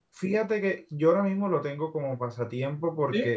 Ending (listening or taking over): listening